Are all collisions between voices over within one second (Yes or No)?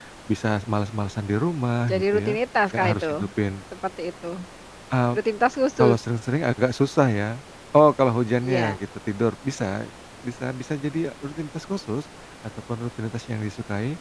Yes